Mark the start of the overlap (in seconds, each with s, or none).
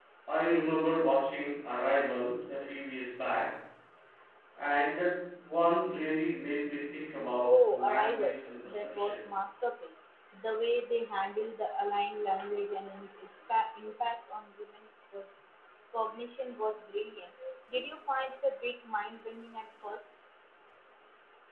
7.4 s